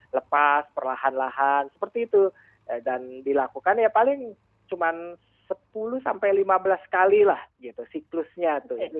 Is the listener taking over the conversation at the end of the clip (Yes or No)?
Yes